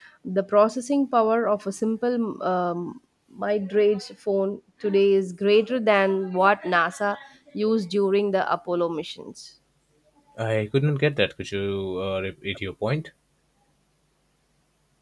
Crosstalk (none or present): none